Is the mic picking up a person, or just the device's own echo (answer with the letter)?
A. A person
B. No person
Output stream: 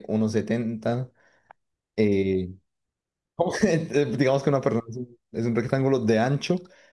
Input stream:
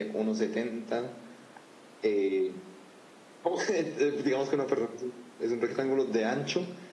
B